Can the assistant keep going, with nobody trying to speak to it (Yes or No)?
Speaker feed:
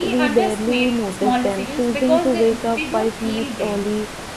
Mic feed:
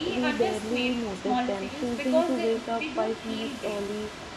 Yes